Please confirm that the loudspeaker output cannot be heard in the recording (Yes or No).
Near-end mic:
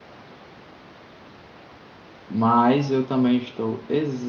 Yes